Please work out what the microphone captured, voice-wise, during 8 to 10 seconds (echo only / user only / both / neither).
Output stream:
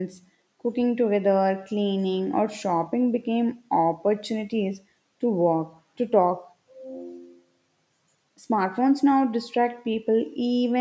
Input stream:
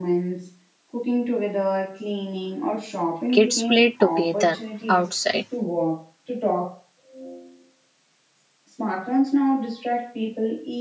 echo only